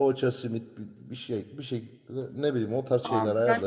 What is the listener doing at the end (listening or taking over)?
taking over